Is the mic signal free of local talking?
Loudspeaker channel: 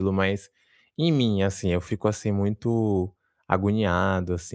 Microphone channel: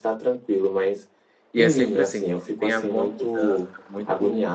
No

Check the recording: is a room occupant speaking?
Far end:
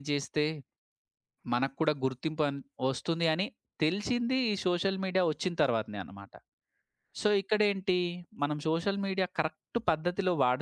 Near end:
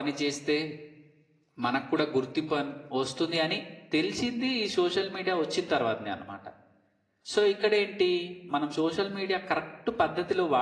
No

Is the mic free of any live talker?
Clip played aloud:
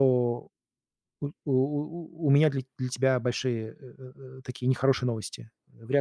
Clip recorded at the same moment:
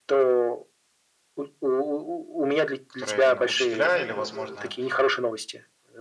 No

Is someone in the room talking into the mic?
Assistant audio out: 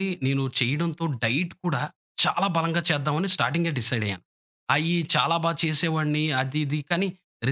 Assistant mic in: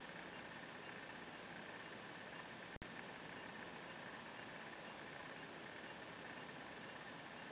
No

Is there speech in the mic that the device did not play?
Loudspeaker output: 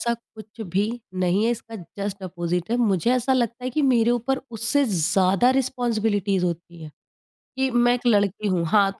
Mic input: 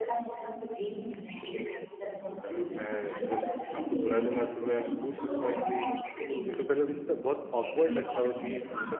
Yes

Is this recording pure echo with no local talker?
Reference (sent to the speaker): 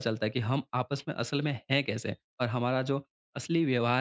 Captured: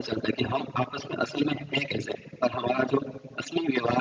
No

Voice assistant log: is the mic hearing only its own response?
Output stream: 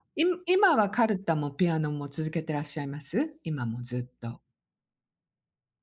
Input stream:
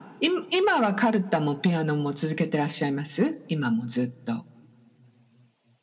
Yes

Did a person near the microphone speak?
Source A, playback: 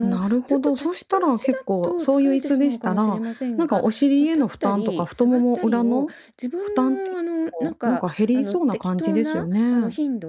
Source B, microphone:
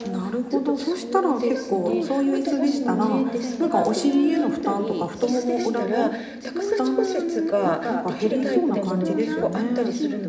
Yes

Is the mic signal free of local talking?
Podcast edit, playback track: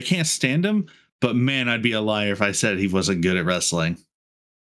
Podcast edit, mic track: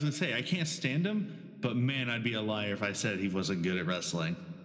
Yes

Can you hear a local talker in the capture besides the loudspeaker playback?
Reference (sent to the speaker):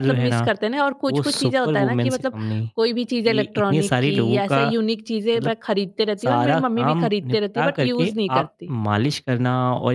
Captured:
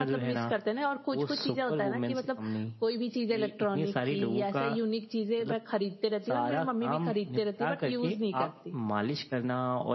No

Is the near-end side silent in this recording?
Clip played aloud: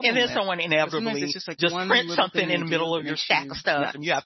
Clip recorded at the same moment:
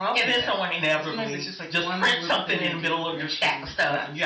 Yes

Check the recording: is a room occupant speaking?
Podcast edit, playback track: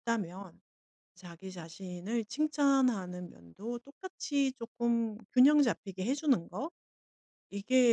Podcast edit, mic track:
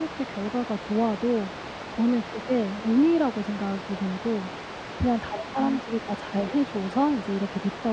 Yes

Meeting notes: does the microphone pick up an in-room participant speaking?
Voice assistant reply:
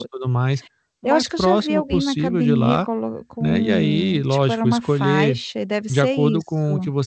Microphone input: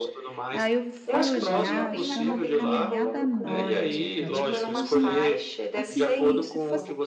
Yes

